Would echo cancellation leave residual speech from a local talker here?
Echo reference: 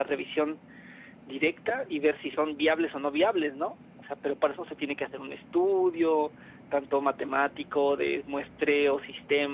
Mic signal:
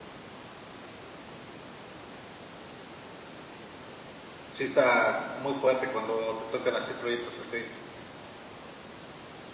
Yes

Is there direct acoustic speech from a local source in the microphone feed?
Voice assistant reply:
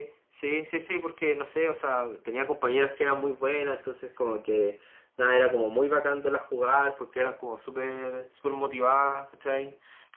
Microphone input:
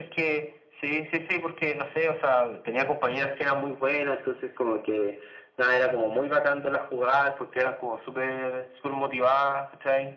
No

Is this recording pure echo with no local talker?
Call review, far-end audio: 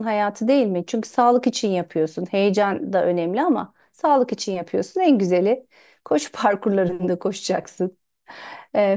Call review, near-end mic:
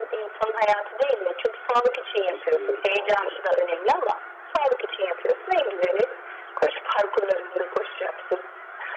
No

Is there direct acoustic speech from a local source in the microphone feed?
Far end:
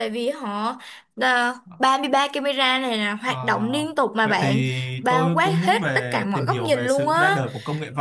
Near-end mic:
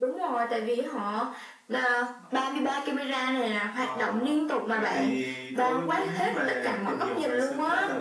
No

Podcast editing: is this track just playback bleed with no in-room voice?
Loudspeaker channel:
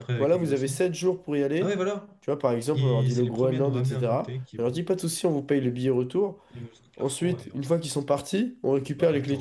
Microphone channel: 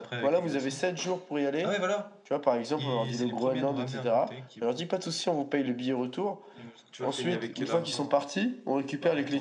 No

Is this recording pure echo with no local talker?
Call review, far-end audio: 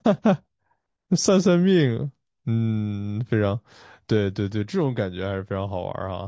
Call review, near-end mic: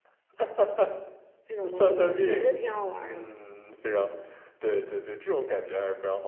No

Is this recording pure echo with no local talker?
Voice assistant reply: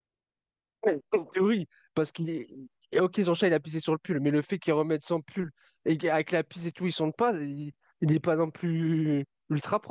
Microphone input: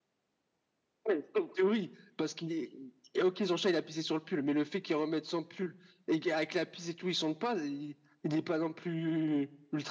Yes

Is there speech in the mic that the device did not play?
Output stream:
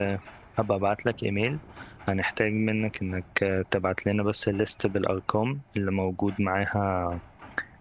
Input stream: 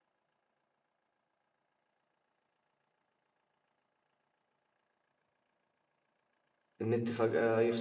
Yes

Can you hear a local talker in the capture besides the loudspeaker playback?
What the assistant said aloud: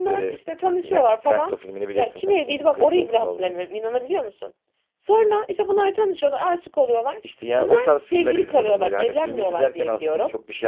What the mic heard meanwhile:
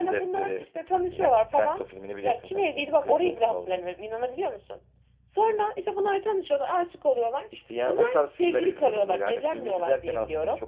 No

